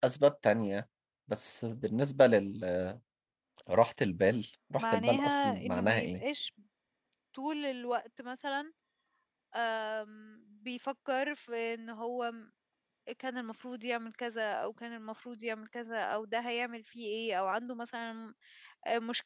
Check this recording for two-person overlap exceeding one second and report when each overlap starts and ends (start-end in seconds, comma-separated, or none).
4.8-6.2